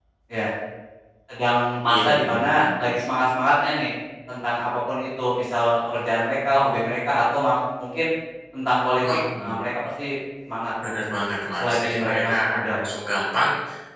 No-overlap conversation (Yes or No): No